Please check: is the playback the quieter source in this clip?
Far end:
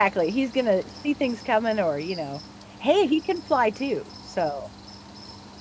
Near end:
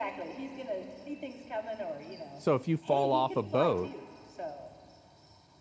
Yes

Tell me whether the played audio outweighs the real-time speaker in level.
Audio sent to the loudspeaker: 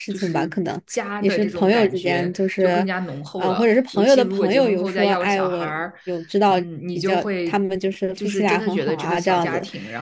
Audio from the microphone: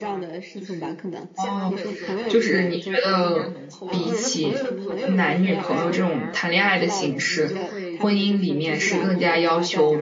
No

